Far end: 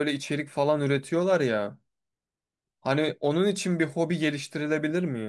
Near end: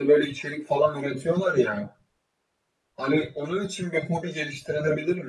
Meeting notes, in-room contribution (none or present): none